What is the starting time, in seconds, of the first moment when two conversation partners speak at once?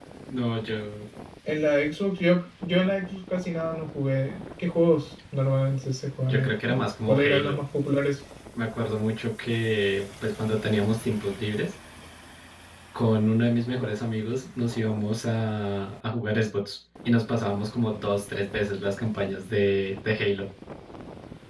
6.2 s

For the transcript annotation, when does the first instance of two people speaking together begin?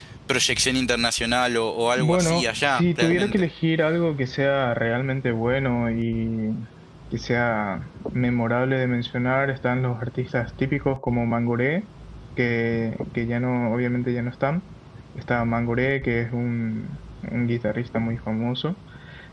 2.0 s

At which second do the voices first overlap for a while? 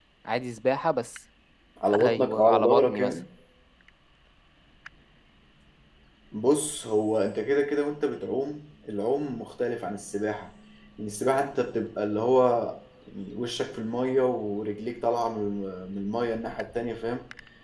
2.0 s

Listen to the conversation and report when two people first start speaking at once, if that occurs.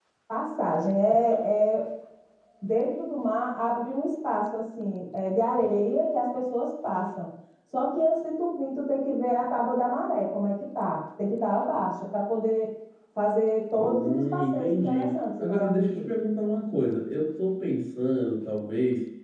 13.8 s

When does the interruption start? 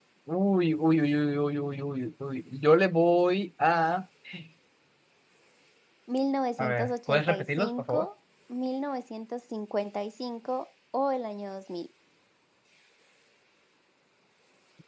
6.6 s

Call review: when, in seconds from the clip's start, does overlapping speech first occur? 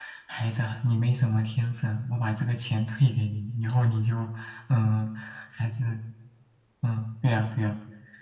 none

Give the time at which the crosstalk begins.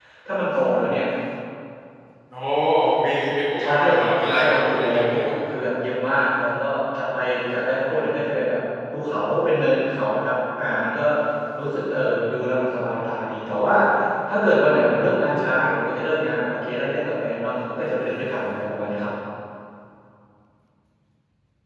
3.6 s

